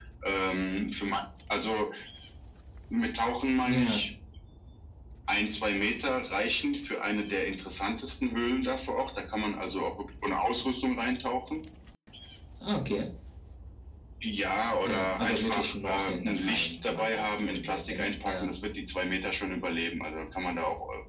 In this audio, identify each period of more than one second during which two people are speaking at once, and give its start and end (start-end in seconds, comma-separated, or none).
14.8-18.5